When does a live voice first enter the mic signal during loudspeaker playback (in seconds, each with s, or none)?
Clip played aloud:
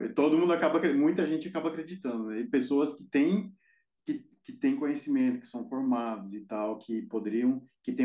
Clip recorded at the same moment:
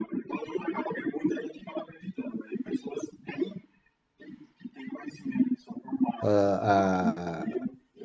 6.2 s